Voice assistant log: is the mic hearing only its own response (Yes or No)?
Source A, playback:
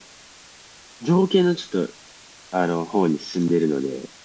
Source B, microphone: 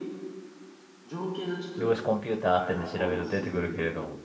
No